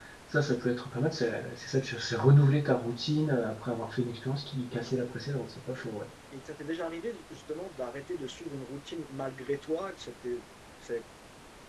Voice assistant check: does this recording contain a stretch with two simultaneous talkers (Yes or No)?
No